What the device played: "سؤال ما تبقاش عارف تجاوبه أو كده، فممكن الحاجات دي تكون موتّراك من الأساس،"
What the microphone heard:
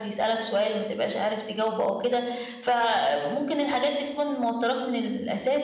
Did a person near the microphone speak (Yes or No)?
No